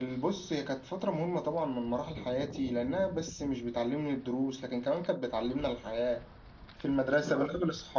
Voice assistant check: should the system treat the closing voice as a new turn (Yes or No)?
No